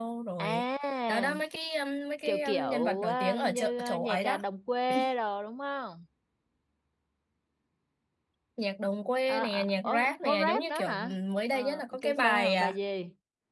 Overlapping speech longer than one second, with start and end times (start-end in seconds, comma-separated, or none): 2.3-4.4, 9.3-11.2, 11.5-12.8